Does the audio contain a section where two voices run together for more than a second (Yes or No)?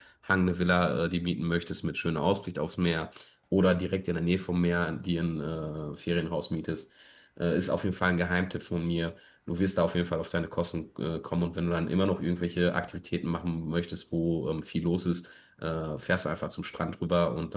No